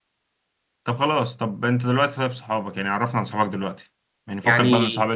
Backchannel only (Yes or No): Yes